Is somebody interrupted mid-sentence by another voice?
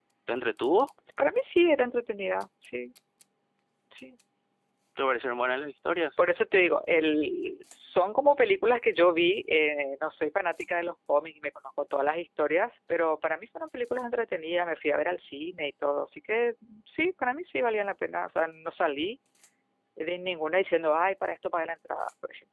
No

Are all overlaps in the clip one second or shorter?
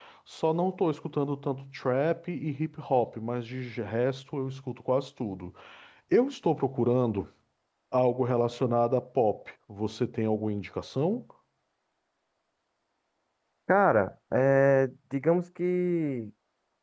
Yes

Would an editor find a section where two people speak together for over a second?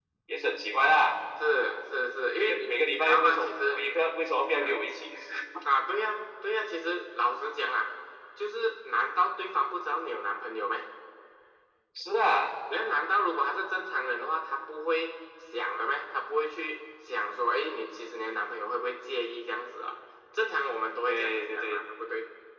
Yes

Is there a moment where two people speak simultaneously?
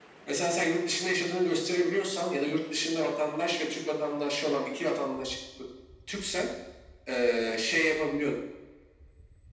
No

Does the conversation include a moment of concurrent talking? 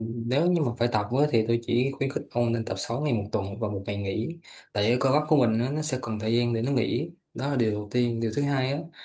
No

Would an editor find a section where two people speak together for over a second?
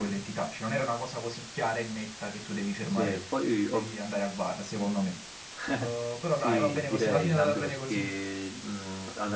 Yes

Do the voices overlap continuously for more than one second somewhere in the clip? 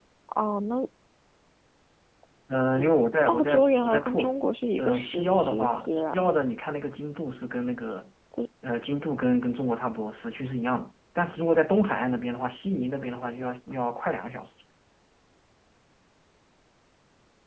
Yes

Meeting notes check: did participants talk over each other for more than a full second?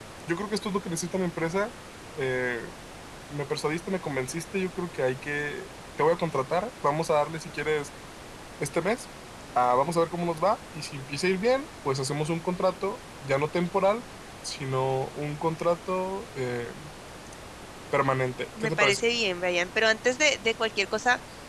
No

